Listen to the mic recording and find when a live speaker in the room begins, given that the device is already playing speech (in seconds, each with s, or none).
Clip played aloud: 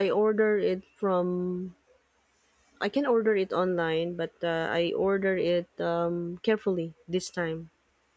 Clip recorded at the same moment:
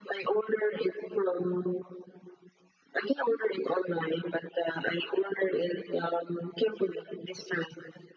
none